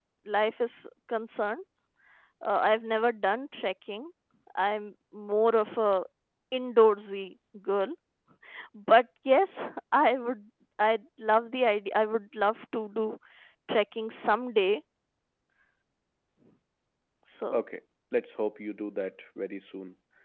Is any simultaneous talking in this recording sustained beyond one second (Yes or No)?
No